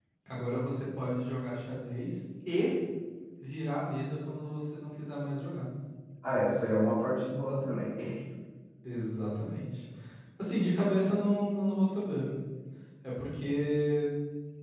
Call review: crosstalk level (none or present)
none